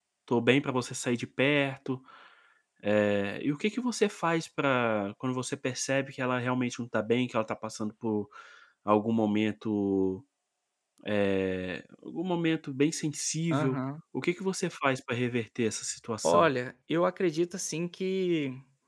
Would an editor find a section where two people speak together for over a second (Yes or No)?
No